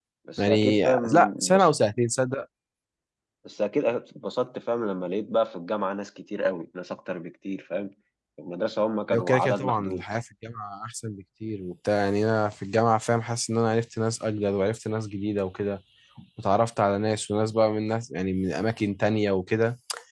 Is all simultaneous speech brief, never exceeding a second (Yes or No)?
No